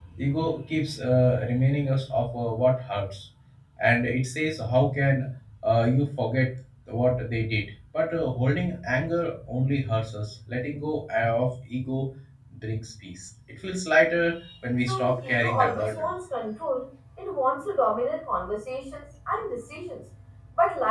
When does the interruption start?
14.9 s

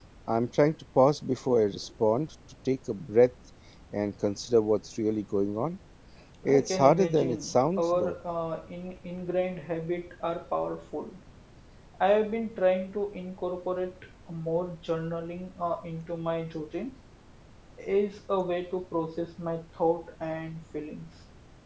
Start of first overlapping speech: 6.5 s

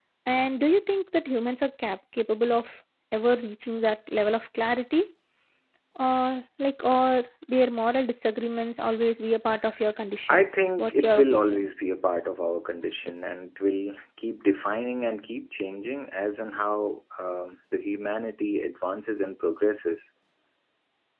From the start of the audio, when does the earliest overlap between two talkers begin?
10.3 s

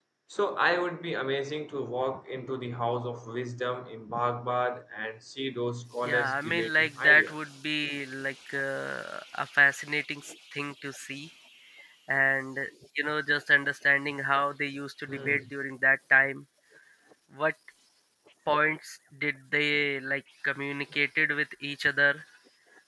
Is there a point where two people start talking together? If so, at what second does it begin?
6.0 s

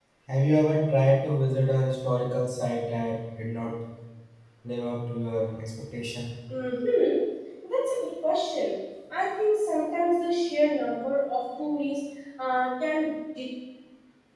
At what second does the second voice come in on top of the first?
none

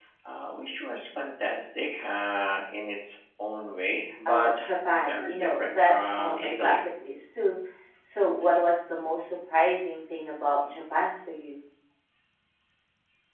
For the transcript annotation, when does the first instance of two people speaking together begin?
4.2 s

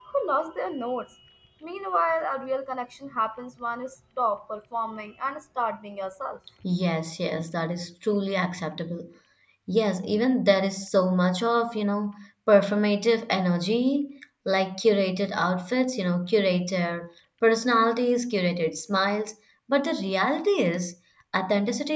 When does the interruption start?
none

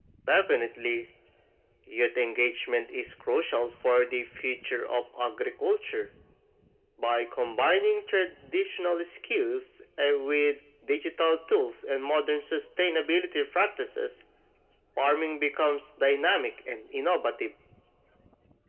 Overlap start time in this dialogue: none

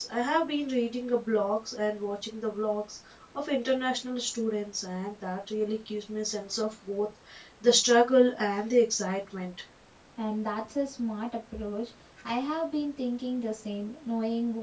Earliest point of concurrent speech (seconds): none

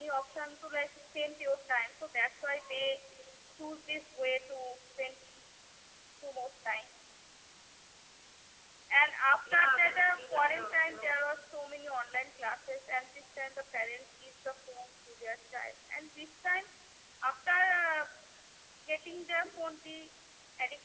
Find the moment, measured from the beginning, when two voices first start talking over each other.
9.5 s

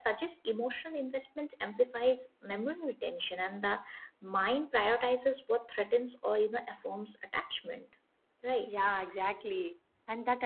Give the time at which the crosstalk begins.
none

